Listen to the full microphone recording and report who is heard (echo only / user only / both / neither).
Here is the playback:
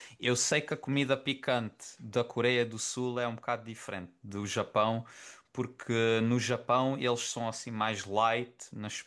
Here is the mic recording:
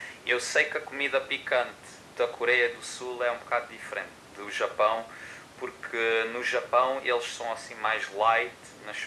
echo only